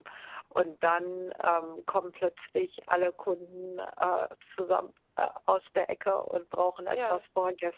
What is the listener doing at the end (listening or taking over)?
listening